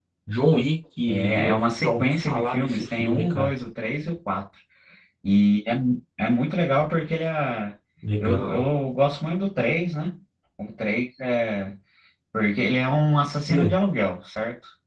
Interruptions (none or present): present